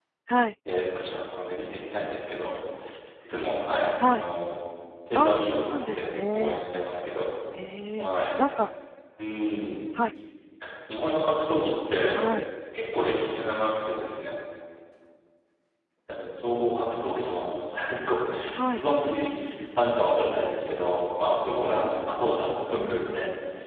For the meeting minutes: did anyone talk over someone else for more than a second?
Yes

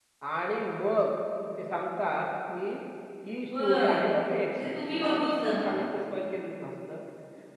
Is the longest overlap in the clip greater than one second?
Yes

